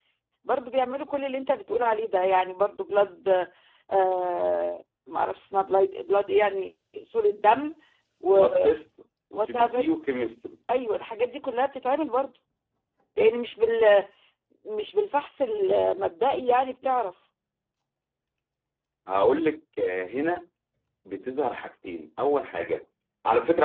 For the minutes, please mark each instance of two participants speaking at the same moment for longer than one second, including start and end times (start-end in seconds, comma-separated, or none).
none